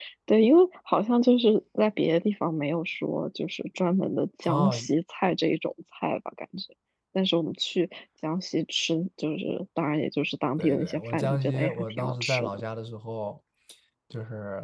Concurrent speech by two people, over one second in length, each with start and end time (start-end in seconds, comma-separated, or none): 10.6-12.6